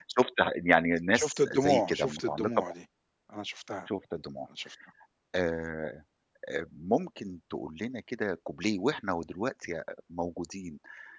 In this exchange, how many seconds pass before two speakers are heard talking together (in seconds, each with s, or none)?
1.1 s